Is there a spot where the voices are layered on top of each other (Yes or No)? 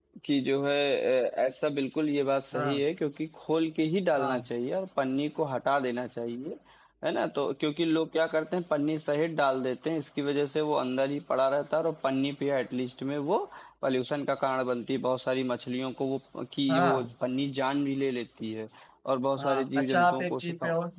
Yes